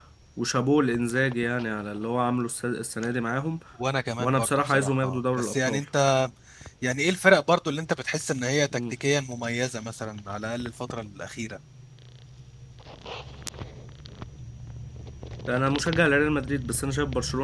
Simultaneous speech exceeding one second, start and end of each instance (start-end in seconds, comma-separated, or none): 4.2-5.8